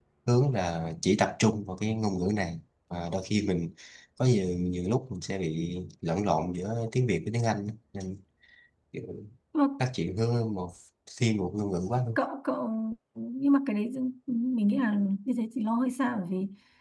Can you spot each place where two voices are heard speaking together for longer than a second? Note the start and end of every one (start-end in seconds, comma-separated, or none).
none